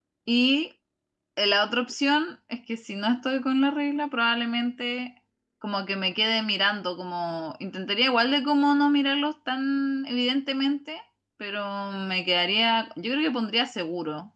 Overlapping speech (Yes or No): No